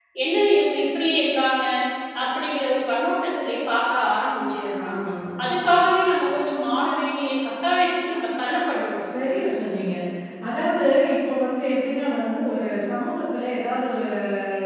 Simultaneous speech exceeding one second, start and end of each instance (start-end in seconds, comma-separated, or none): none